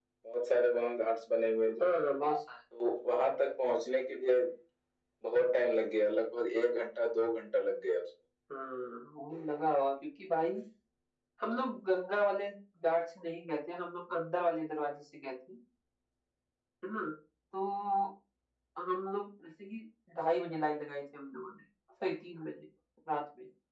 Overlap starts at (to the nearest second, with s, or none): none